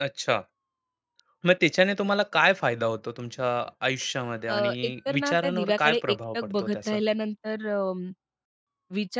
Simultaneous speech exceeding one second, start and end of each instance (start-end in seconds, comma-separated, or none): 4.5-7.0